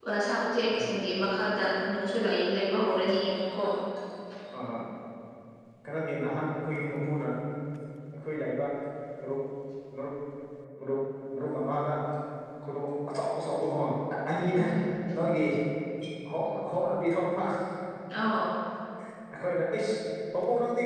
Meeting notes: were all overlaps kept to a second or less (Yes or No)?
Yes